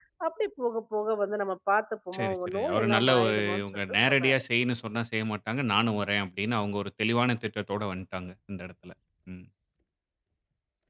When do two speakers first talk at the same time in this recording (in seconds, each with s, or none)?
2.1 s